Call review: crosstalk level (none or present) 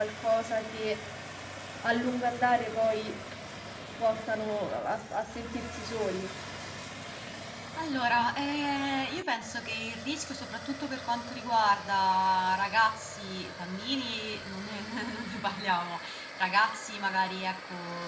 none